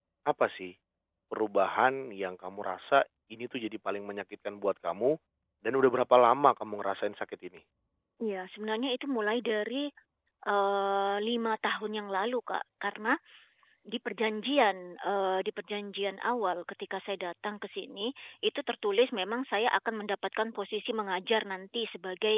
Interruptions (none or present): none